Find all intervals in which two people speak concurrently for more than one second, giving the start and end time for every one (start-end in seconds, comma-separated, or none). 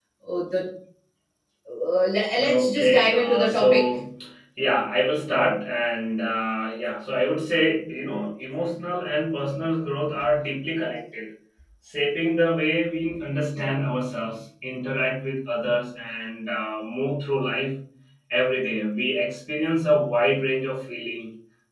2.4-3.9